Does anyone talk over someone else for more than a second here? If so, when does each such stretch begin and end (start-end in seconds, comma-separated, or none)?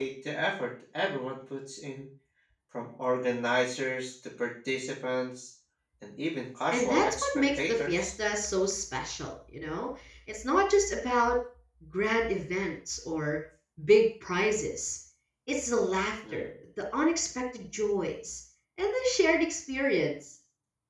6.7-8.1